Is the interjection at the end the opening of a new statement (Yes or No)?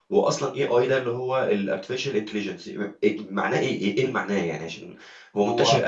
No